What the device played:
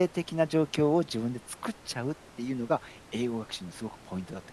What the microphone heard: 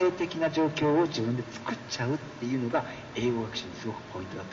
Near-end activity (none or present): none